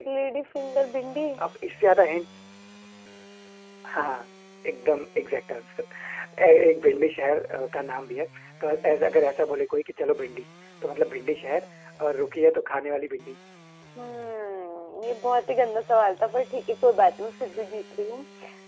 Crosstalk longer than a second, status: none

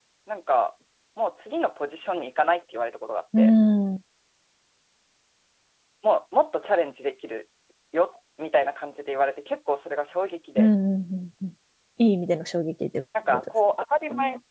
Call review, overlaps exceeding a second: none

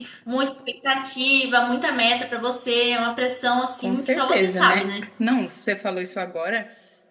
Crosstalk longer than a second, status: present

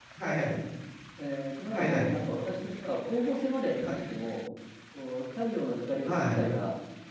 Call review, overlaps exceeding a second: none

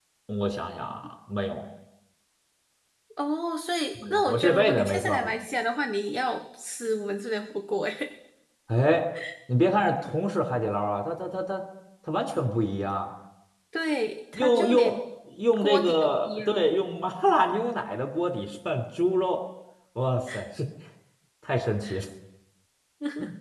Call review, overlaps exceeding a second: present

